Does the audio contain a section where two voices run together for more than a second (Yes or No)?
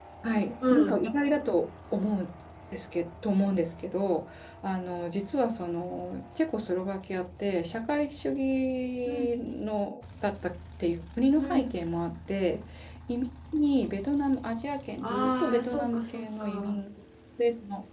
Yes